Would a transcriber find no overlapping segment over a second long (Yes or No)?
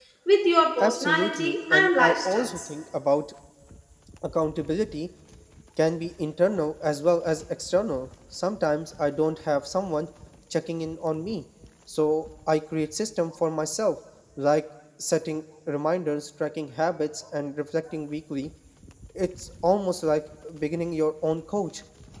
No